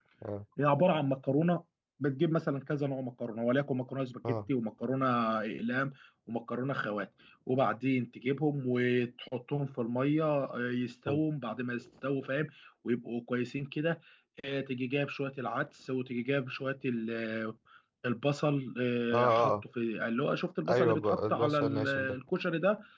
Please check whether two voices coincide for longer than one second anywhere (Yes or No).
Yes